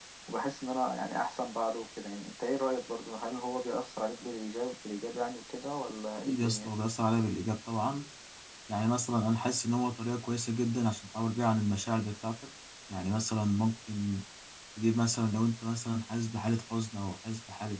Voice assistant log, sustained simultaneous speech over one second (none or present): none